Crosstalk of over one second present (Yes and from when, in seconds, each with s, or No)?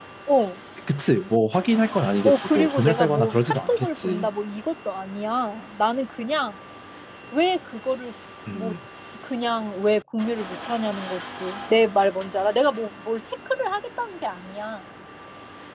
Yes, from 2.2 s